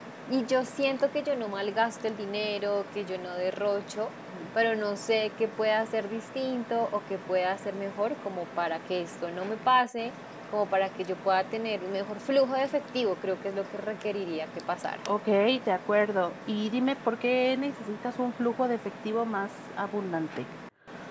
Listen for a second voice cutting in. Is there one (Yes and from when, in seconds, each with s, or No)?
No